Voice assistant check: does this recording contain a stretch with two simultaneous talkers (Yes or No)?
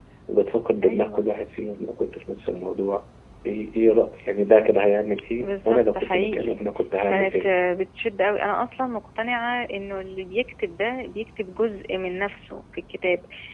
Yes